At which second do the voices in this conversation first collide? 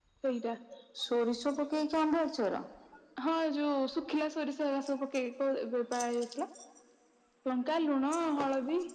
none

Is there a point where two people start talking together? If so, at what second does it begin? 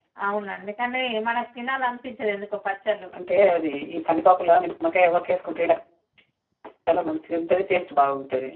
none

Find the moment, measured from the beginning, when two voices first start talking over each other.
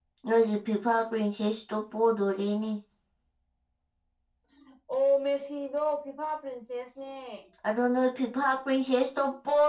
none

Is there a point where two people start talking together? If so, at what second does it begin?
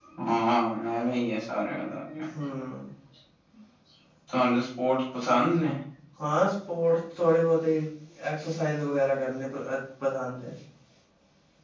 none

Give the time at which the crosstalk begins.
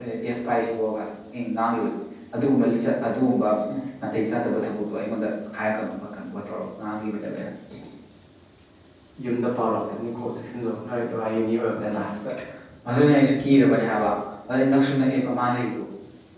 none

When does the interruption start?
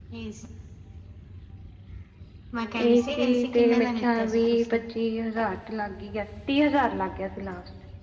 3 s

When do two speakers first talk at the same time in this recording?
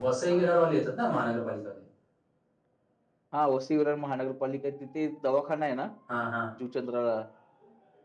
none

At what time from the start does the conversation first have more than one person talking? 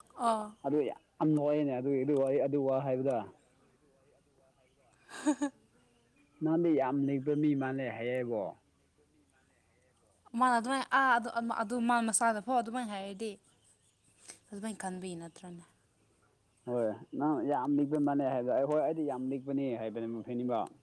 none

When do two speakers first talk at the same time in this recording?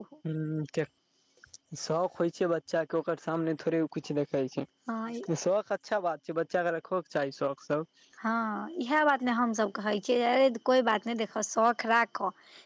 none

